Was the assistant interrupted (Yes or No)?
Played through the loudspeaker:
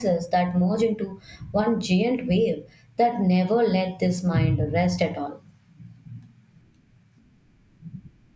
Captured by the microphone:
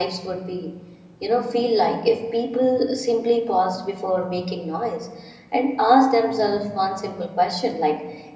Yes